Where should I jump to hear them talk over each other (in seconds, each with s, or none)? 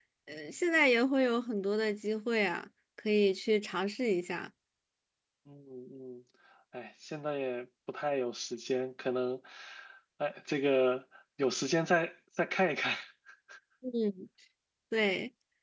none